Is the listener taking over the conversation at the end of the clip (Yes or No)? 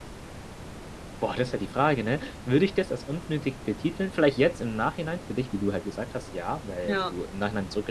No